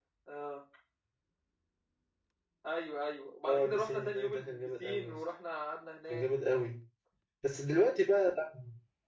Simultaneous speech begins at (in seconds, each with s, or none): 3.5 s